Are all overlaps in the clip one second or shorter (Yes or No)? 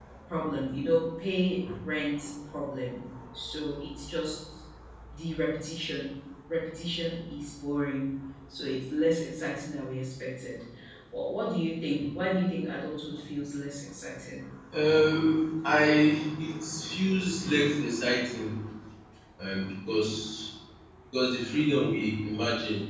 Yes